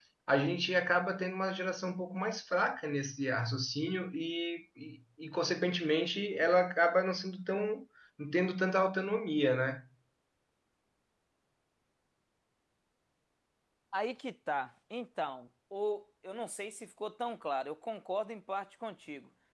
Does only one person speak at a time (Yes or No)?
Yes